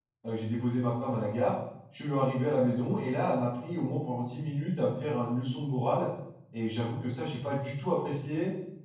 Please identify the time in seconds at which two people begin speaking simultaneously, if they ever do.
none

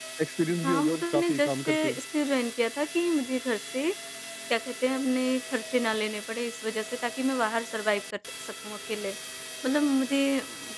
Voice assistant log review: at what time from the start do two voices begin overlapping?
0.6 s

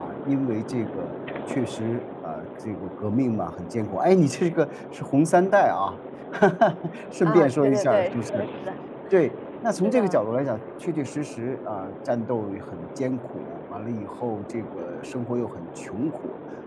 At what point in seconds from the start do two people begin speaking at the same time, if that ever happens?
7.2 s

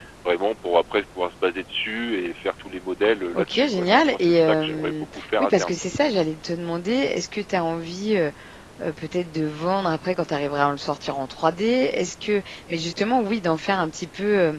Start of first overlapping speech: 3.3 s

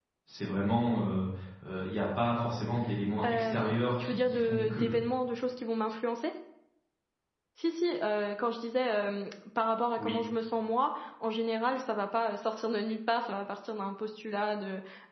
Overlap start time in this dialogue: 3.2 s

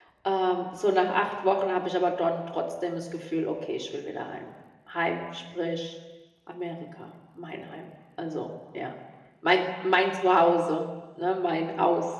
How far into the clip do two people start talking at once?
none

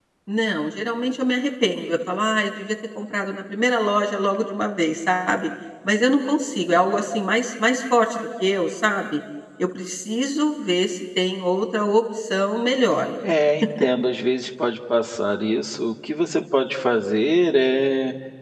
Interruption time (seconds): none

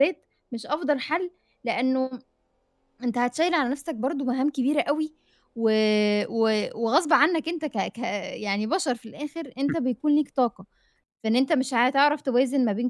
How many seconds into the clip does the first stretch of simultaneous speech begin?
none

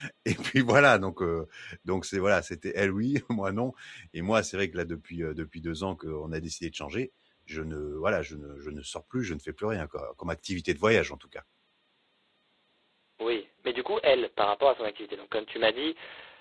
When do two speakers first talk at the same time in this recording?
none

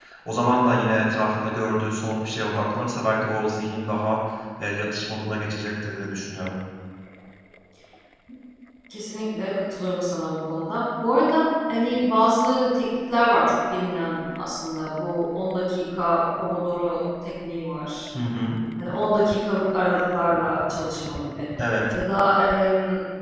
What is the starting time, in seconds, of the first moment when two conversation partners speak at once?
none

